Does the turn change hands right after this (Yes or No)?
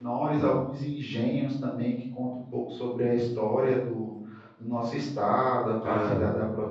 No